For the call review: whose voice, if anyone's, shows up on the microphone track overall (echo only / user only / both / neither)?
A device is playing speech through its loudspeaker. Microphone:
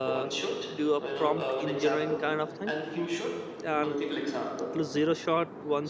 both